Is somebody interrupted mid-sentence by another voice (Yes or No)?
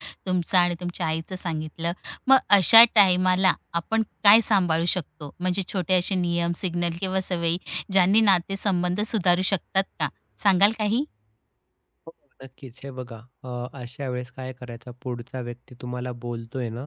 No